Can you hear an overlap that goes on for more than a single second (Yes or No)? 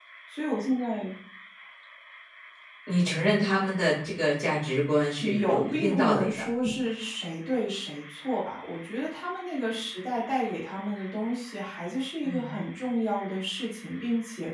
Yes